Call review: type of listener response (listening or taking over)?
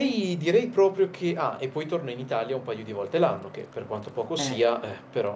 listening